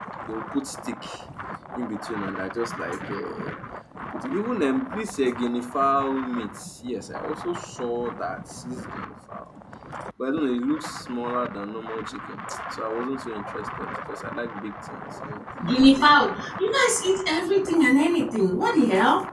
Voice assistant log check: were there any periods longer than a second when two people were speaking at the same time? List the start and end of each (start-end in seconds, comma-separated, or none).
none